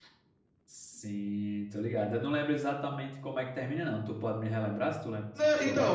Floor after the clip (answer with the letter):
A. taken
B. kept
A